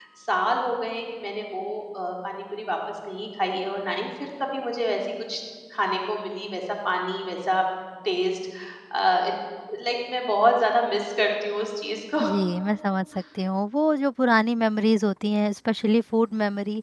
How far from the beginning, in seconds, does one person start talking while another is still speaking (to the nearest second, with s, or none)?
none